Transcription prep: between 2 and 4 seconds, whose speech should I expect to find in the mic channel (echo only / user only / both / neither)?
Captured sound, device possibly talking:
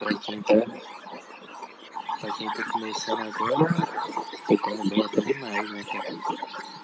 echo only